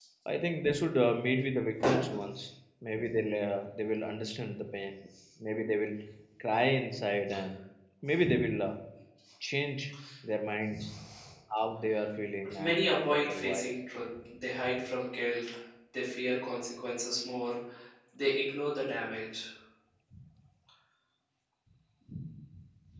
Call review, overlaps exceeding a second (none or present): present